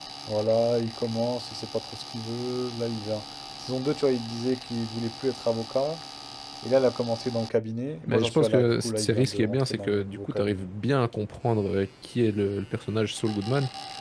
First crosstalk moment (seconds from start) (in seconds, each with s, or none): 8.1 s